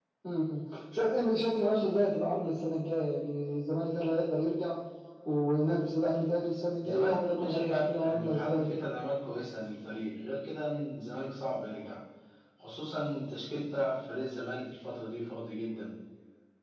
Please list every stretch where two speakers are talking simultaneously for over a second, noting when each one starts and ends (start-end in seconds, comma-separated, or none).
6.8-8.7